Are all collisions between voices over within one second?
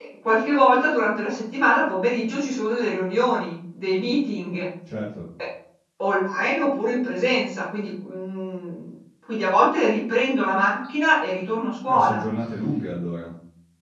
Yes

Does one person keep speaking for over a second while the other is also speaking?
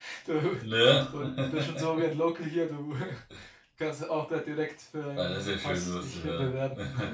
Yes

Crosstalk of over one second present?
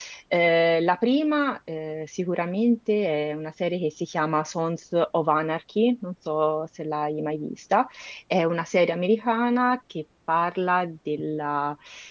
No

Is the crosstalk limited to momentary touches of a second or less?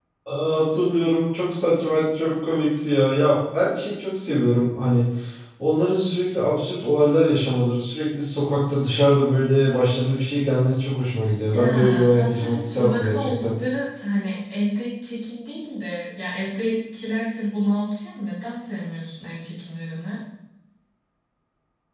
No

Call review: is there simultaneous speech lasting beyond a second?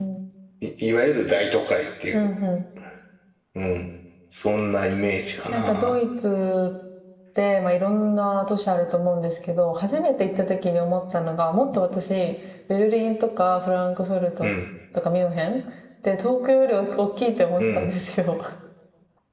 No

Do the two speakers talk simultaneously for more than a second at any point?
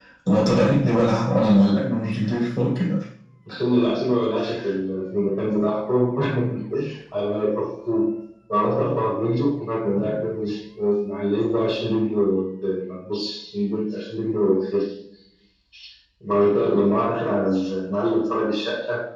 No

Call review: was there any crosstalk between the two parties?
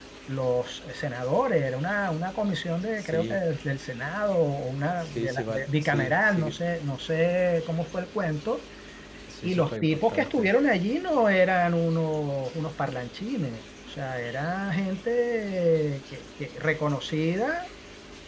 Yes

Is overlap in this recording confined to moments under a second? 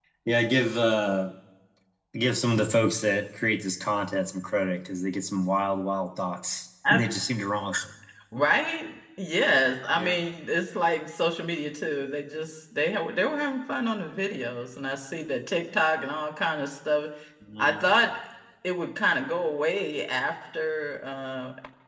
Yes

